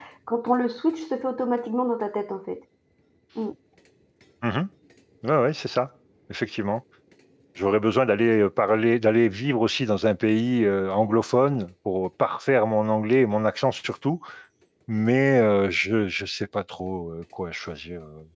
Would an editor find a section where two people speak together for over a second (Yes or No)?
No